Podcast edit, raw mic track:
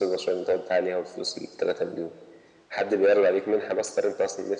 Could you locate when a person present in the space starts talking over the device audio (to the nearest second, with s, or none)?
none